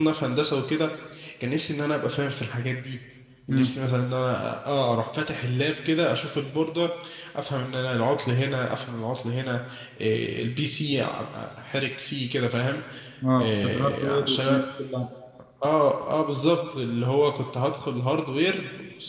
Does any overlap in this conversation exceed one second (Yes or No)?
Yes